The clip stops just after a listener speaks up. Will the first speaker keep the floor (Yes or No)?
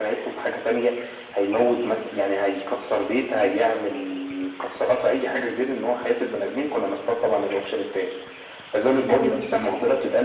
Yes